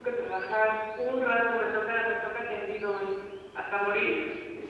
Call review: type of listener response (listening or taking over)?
taking over